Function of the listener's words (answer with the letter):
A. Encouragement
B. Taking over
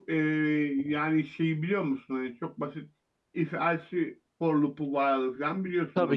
B